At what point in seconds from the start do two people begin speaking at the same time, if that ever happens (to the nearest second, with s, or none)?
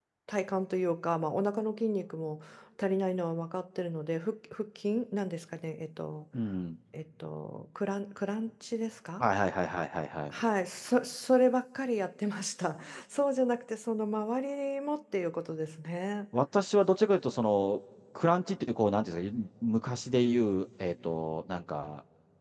none